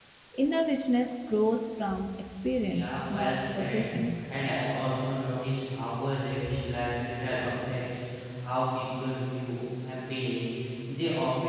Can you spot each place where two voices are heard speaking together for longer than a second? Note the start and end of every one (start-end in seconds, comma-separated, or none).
2.6-3.9